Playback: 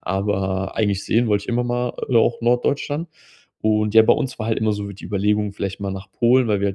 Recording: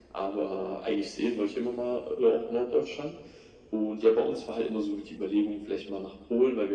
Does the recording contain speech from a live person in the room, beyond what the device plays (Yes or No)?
No